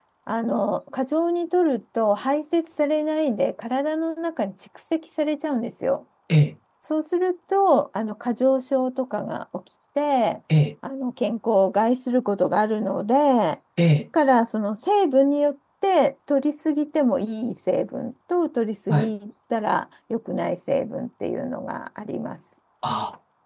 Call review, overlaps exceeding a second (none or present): none